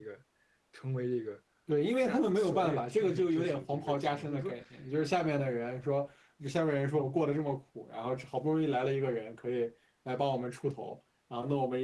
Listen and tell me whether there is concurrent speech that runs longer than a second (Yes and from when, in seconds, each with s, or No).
Yes, from 2.0 s